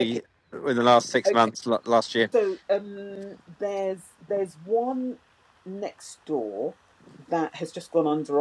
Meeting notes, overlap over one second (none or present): none